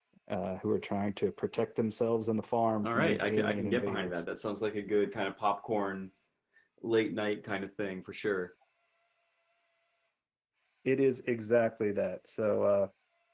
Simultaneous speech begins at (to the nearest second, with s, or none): 3 s